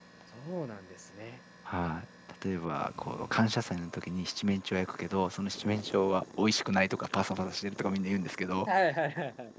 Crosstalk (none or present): none